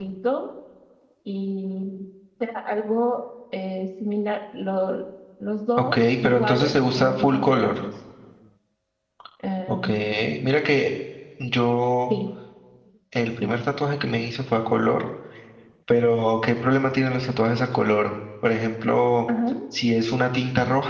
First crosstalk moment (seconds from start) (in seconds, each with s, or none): 5.8 s